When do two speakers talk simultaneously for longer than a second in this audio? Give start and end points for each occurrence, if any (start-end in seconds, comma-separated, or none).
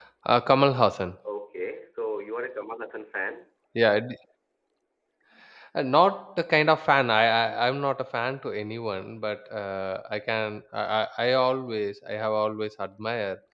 none